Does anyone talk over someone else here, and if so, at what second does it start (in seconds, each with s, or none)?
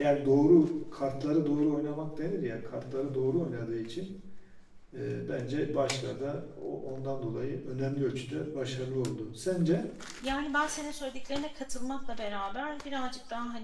none